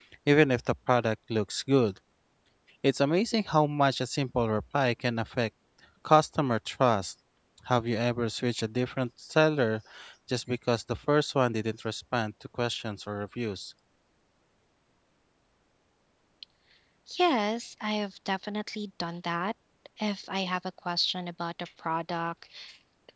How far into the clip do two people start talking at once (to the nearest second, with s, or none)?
none